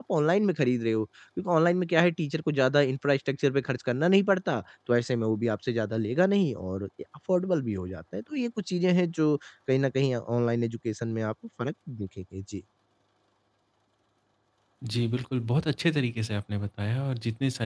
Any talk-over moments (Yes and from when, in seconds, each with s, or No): No